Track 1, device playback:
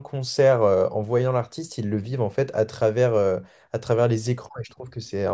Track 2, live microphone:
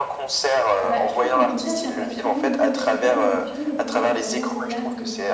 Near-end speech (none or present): present